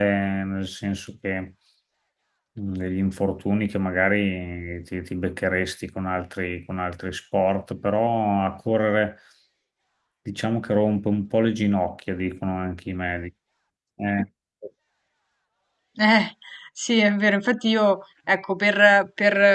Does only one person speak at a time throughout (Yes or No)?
Yes